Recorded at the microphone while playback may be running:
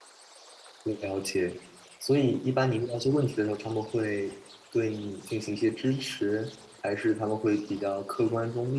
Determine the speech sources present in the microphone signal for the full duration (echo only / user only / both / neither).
user only